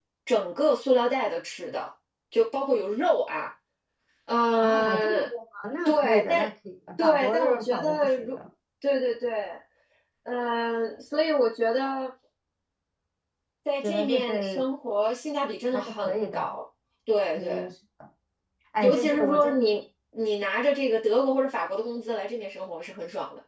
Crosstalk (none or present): present